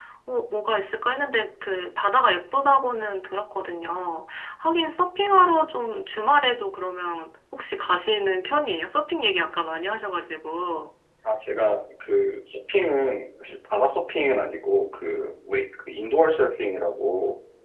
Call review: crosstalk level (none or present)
none